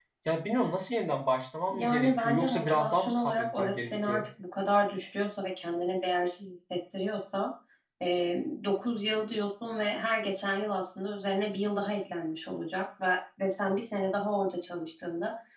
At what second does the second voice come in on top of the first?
2 s

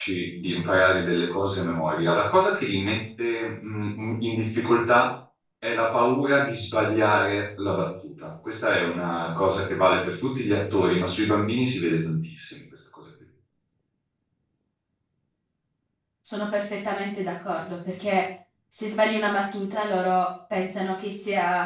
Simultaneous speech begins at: none

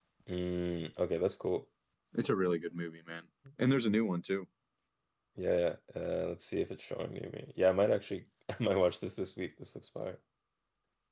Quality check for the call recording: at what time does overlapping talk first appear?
none

